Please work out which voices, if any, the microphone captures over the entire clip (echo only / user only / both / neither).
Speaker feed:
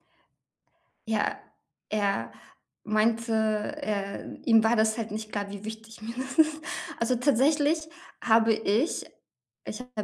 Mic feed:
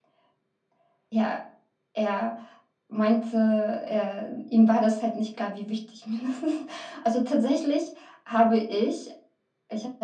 echo only